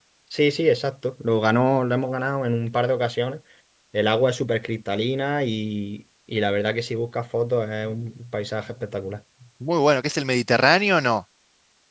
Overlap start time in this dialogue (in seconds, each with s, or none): none